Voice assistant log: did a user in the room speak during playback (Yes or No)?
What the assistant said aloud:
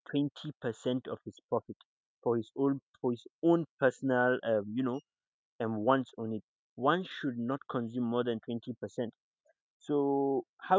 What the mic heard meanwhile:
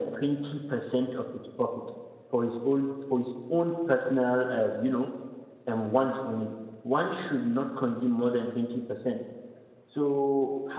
No